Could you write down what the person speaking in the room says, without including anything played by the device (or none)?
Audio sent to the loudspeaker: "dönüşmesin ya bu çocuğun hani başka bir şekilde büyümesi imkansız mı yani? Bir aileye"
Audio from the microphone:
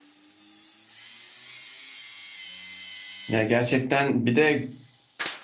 Ya gerçekten bir de